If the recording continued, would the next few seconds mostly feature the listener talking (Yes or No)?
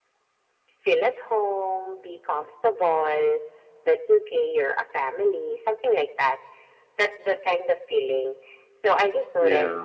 No